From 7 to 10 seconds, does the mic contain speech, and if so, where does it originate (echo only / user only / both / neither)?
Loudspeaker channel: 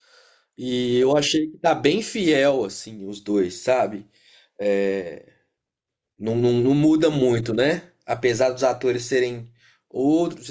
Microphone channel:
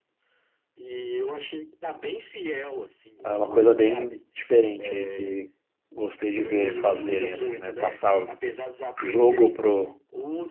both